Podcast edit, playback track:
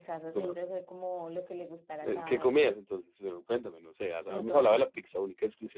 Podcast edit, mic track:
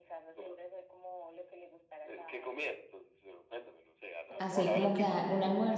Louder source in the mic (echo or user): user